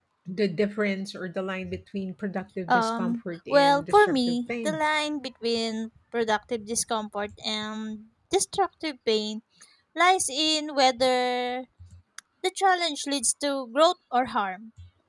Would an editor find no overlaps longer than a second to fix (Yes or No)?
No